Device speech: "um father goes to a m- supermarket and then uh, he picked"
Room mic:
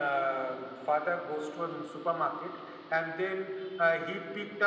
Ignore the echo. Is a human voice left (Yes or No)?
No